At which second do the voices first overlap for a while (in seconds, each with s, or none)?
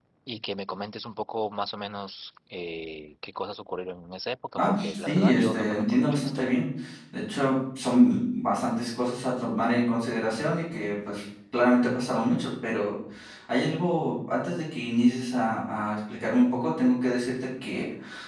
4.6 s